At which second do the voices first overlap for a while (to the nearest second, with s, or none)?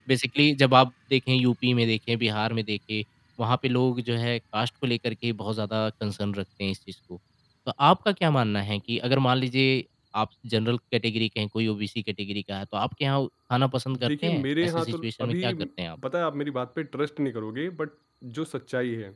14 s